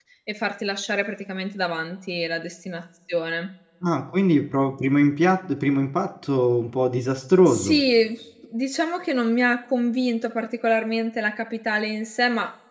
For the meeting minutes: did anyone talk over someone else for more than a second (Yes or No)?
No